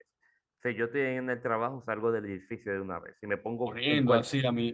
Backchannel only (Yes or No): No